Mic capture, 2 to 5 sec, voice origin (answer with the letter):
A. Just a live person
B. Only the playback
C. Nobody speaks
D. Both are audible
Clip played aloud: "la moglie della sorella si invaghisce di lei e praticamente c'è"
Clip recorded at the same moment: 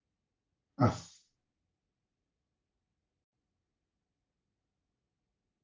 C